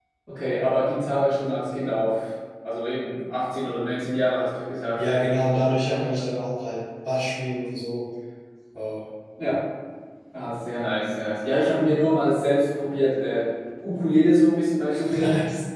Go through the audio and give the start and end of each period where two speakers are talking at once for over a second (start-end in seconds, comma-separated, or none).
none